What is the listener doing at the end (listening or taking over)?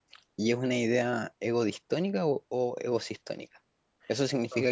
listening